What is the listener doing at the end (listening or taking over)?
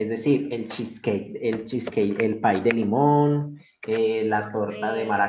listening